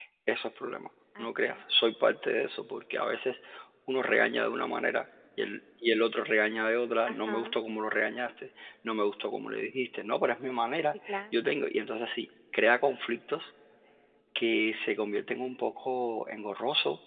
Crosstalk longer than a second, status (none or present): none